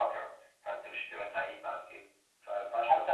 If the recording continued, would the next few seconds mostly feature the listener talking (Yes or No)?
Yes